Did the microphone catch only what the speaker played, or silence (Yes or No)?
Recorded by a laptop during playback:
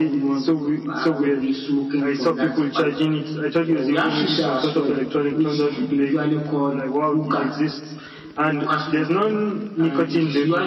Yes